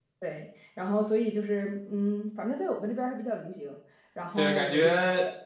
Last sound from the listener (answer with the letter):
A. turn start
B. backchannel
A